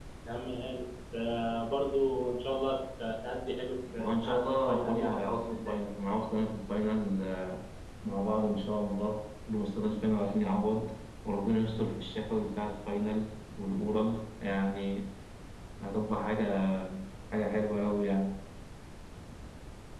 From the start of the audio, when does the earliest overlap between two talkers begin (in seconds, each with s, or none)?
3.8 s